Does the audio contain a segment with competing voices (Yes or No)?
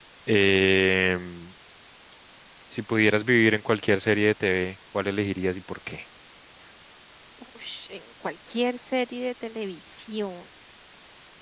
No